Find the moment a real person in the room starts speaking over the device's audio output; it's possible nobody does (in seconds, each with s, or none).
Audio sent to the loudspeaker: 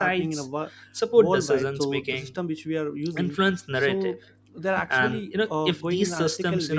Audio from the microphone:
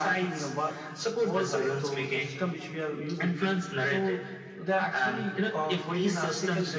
none